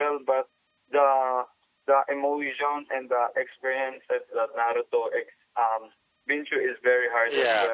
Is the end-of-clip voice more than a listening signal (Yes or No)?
Yes